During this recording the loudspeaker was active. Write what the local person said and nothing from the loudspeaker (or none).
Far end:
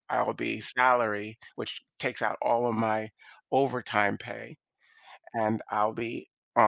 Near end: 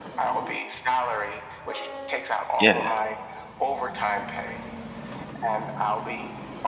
Yeah.